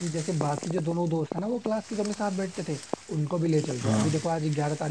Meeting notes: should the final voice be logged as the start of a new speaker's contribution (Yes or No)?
No